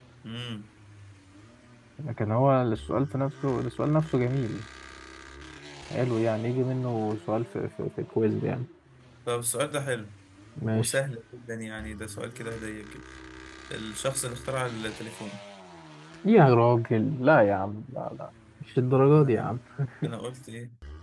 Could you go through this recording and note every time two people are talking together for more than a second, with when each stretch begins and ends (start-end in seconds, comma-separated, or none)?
none